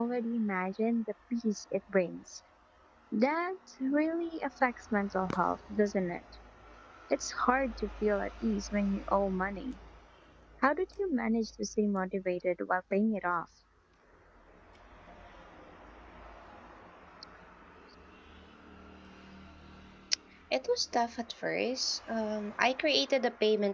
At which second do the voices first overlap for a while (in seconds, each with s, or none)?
none